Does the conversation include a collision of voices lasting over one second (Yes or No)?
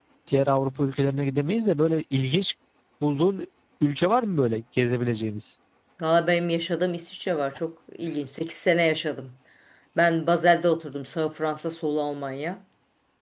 No